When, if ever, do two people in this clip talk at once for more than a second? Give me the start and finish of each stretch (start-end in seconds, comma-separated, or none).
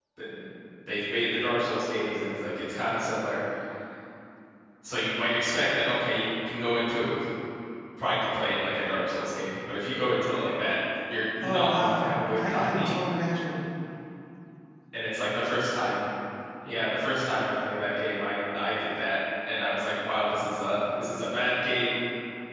11.4-12.9